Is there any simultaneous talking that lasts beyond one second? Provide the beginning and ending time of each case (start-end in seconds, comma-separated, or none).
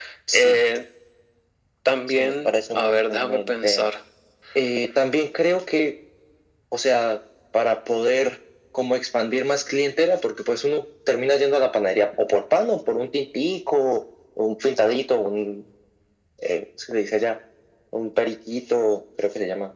2.1-3.9